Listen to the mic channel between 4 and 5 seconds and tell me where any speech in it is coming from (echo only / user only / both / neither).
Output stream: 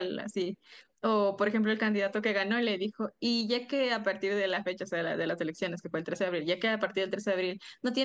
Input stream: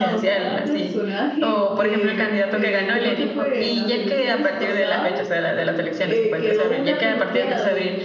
both